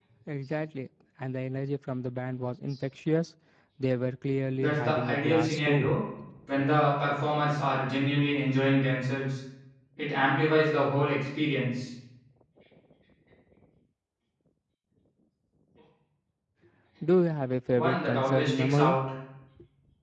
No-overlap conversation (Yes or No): No